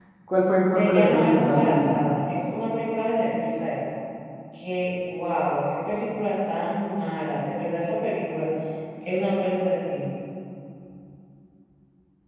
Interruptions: present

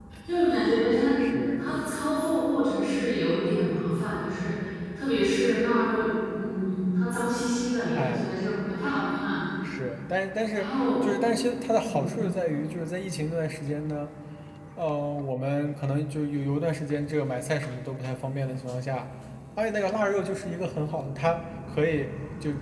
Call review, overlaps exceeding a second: none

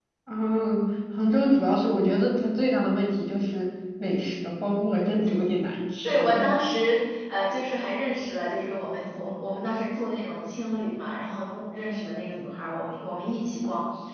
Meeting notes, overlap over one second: none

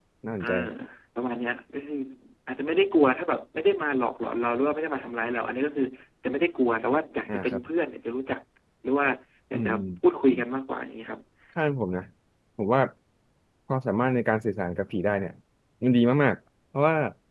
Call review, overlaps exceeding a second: none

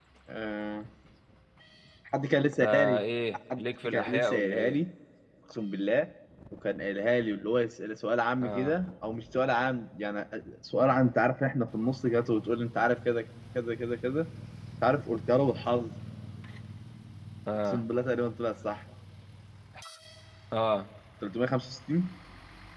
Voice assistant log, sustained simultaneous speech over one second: present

